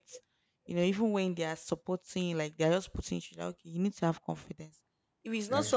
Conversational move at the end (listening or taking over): listening